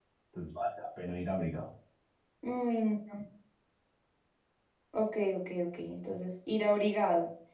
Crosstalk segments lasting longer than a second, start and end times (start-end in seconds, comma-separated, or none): none